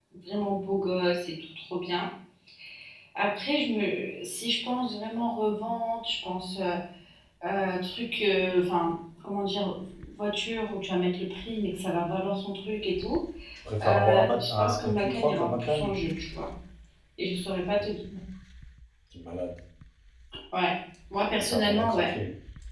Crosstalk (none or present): present